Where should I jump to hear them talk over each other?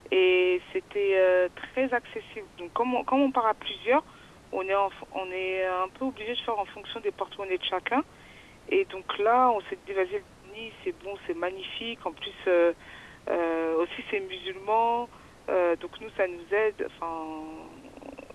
none

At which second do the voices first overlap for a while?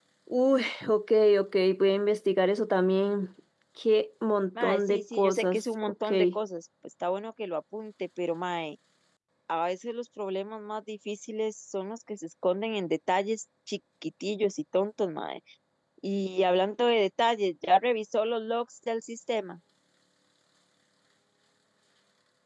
4.6 s

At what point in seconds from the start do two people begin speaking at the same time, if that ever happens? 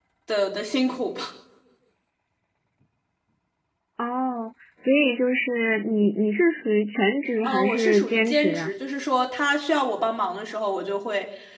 7.4 s

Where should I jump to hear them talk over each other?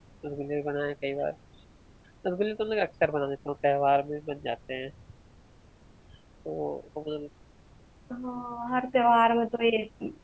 none

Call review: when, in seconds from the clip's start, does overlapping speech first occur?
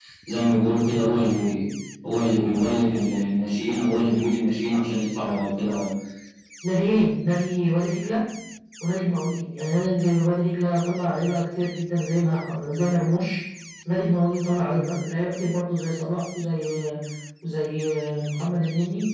none

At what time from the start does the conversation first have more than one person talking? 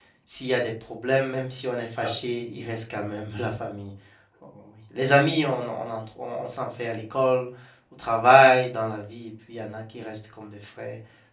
none

